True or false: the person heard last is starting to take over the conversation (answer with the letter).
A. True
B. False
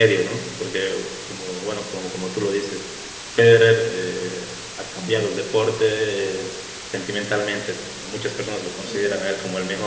B